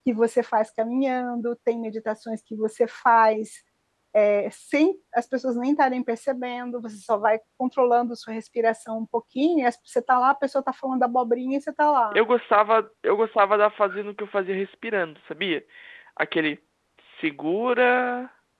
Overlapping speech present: No

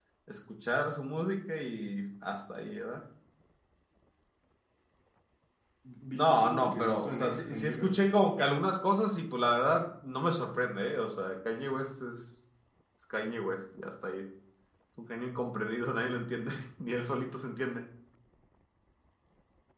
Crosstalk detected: Yes, from 6.1 s

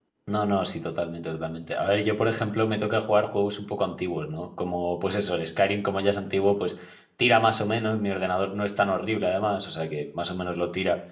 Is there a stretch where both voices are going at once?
No

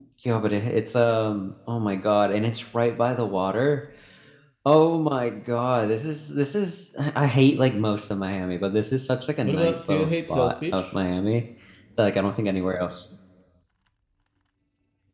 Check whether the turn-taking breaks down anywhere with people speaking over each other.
Yes, from 9.4 s

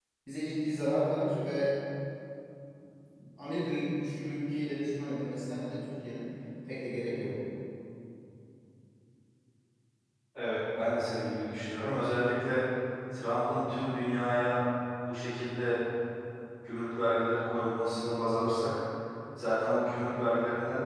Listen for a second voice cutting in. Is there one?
No

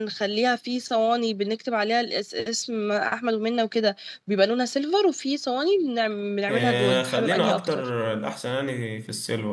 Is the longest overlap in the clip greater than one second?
Yes, from 6.5 s

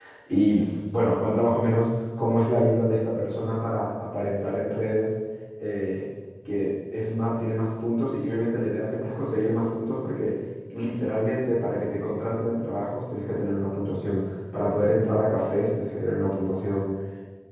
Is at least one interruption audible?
No

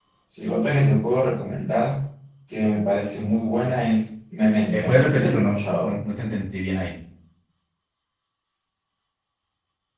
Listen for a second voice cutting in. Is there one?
Yes, from 4.7 s

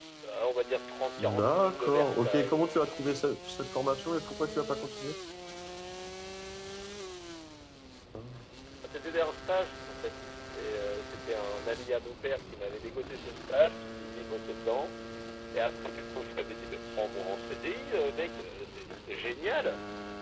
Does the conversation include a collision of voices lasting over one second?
Yes, from 1.2 s

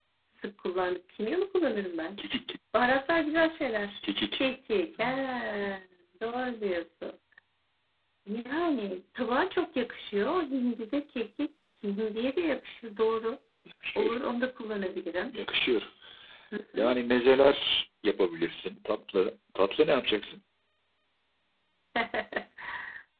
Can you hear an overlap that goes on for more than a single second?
No

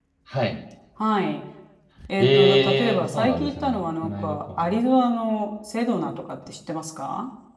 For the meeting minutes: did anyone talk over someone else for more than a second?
Yes, from 2.2 s

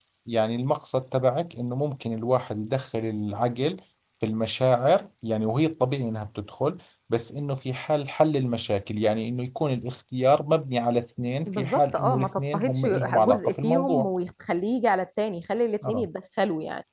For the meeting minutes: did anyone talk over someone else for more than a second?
Yes, from 11.5 s

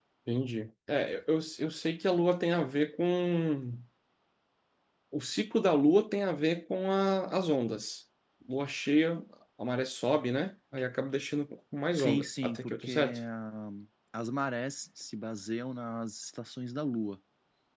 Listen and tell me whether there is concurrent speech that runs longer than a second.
Yes, from 11.9 s

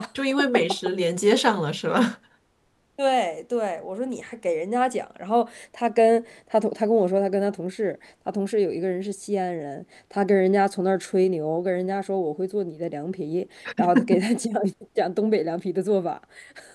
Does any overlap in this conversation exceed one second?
No

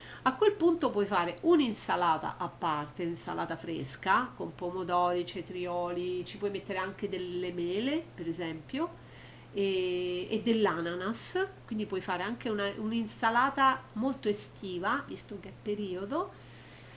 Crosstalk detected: No

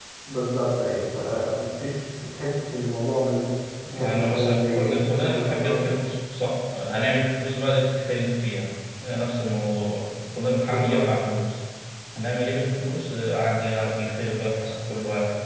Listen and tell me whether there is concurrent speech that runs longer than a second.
Yes, from 3.9 s

